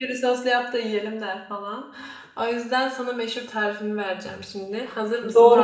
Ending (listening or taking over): taking over